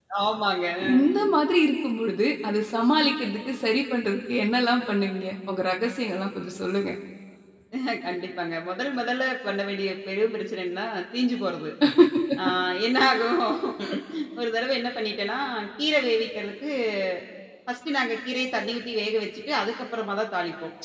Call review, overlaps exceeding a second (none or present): none